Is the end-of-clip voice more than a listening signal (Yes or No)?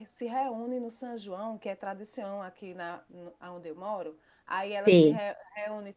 No